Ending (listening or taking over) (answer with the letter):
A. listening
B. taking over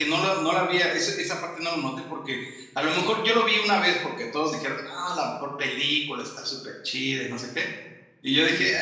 A